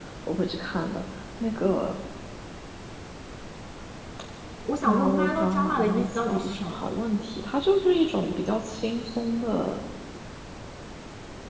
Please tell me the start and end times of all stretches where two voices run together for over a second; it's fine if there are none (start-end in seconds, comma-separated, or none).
4.8-6.8